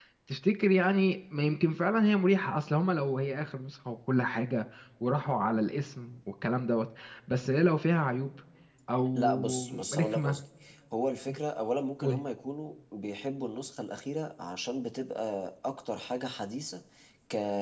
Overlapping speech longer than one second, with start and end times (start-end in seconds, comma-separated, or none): 9.2-10.4